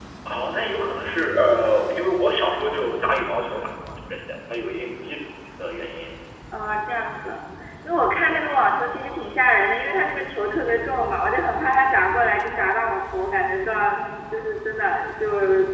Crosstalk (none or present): none